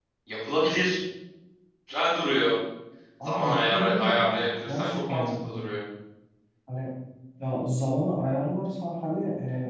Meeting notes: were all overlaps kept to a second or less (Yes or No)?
No